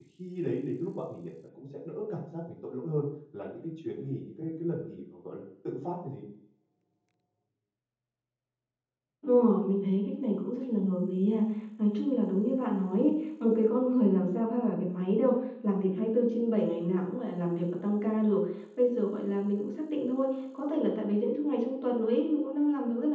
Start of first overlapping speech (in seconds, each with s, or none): none